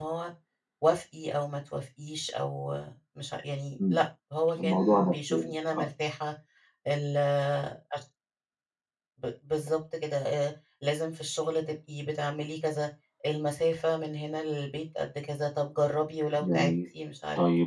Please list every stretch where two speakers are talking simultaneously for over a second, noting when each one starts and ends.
4.6-5.8

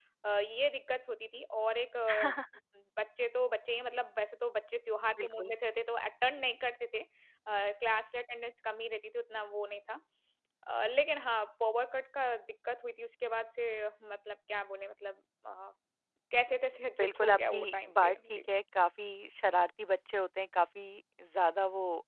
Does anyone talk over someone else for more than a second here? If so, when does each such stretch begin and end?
17.0-18.4

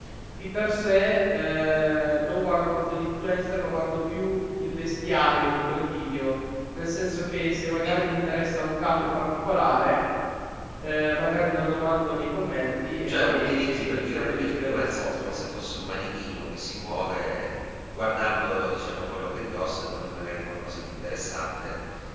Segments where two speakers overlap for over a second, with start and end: 13.1-15.0

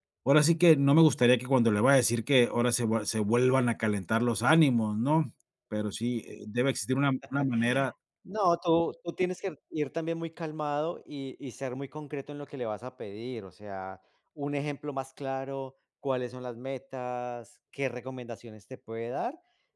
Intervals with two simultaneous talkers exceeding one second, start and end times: none

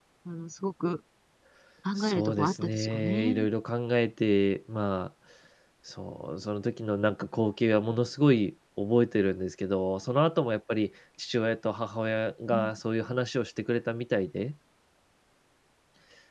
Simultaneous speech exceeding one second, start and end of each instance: 2.0-3.5

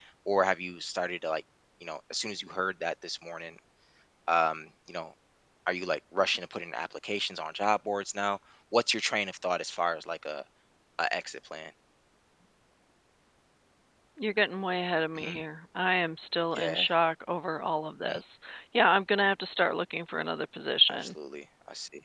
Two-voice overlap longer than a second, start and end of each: none

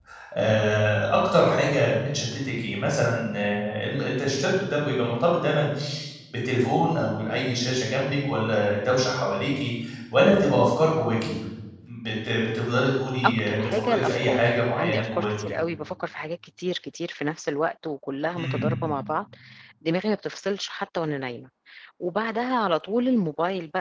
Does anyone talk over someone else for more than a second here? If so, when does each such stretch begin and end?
13.2-15.5

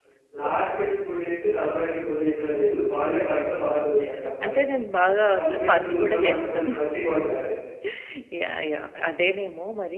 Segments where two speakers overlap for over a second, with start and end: 5.3-6.6

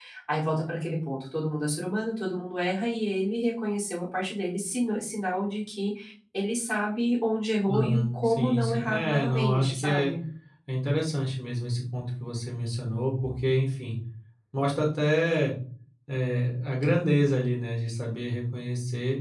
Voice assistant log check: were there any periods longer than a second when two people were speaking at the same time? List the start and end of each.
7.7-10.1

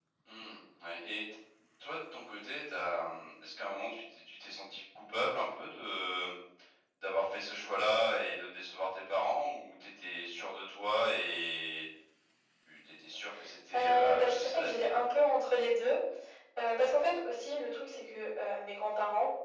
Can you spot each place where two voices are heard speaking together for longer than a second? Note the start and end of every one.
13.7-14.9

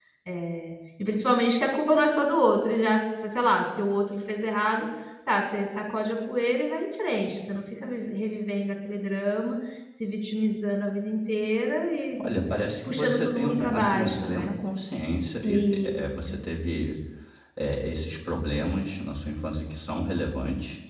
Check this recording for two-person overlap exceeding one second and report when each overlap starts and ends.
12.9-14.5

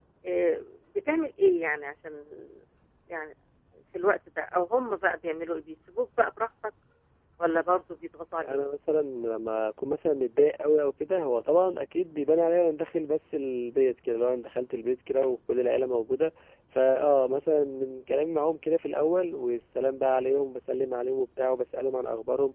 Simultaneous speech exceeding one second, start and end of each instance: none

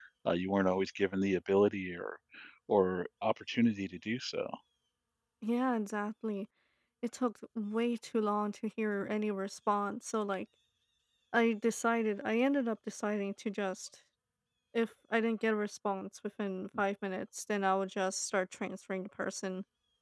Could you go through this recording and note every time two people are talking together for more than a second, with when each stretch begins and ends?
none

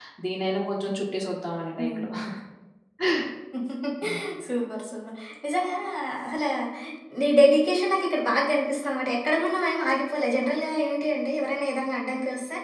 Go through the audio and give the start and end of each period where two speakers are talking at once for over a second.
none

